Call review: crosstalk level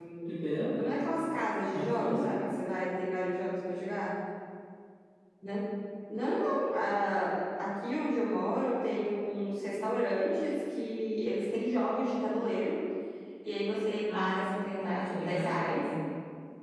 present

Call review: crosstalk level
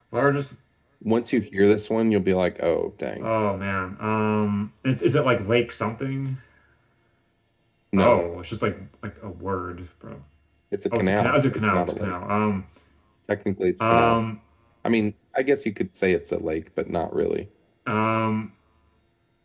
present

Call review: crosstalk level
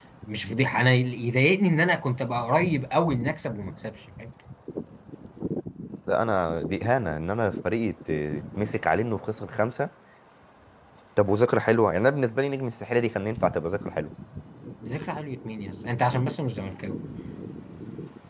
none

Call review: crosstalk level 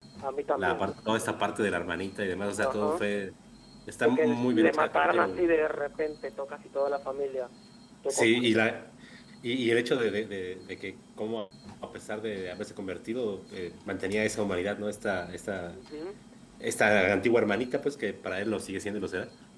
present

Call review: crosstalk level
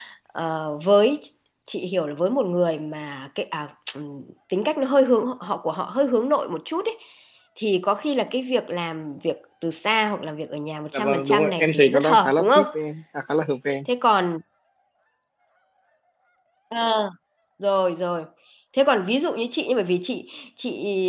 present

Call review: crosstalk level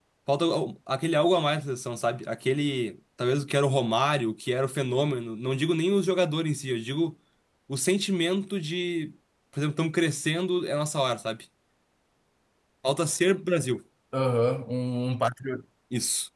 none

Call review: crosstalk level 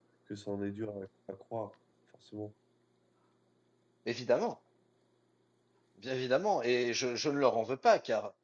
none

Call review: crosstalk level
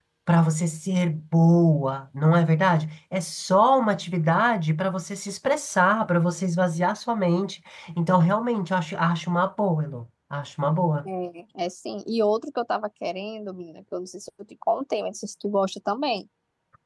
none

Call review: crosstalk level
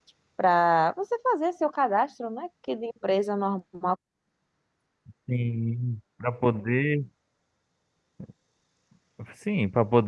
none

